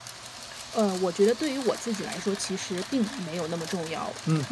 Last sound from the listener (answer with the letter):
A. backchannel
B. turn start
B